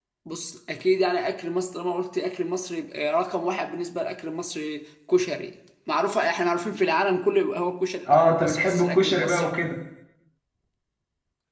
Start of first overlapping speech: 8.1 s

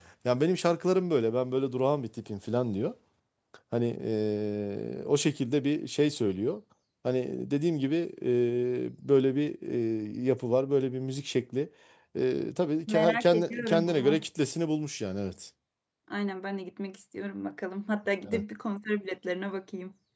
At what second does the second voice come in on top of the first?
12.9 s

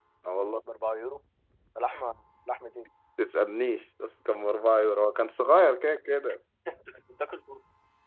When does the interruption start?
none

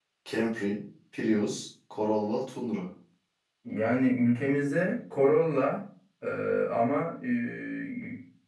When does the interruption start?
none

